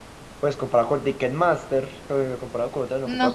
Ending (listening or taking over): listening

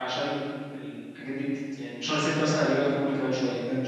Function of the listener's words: taking over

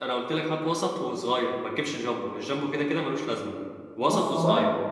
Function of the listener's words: taking over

